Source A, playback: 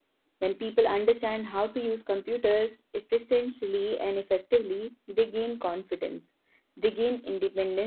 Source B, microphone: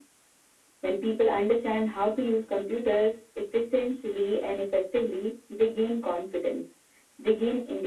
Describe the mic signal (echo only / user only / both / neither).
echo only